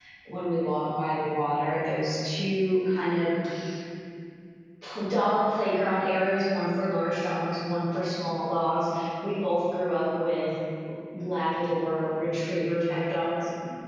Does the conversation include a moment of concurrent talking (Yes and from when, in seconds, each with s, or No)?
No